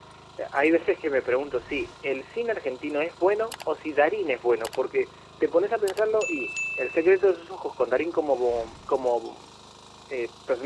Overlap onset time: none

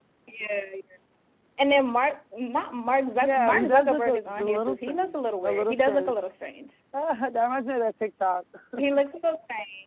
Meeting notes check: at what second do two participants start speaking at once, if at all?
3.2 s

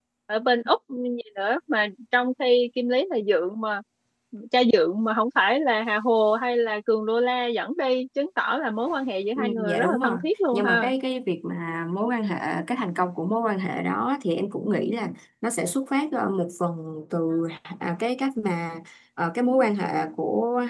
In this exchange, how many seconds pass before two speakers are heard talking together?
9.4 s

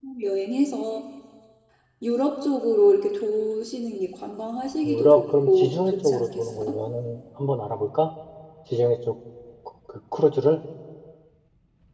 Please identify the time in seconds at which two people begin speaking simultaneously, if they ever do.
4.8 s

